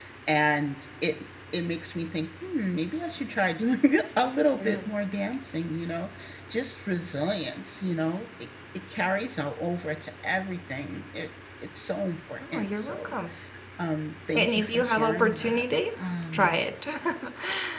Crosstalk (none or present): present